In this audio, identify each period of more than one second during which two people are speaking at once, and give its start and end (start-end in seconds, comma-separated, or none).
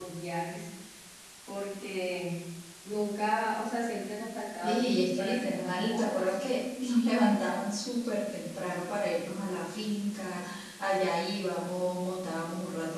4.6-6.4